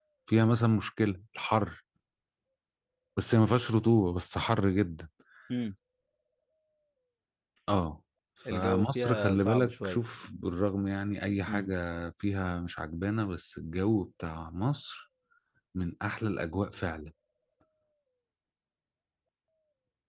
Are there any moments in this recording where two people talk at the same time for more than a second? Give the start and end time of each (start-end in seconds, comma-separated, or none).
8.5-10.0